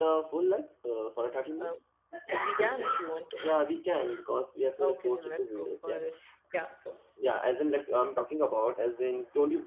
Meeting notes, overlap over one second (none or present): present